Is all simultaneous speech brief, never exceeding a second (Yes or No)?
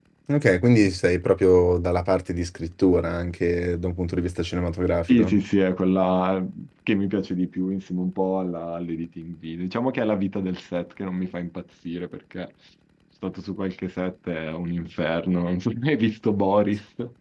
Yes